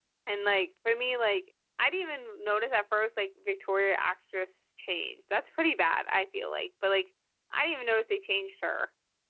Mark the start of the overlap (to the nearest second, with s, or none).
none